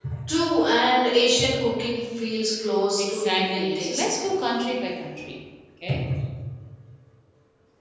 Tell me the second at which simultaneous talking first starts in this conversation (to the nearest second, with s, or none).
3 s